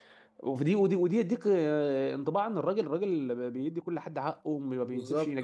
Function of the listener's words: listening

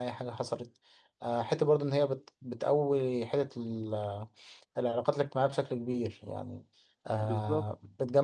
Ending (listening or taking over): listening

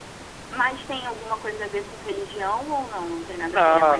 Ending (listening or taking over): taking over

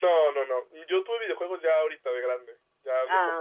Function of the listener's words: listening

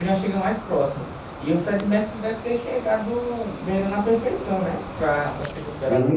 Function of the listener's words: taking over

